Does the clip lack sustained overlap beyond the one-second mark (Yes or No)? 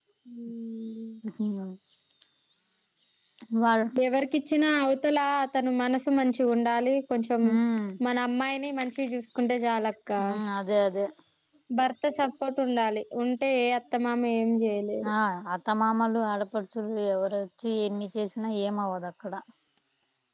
Yes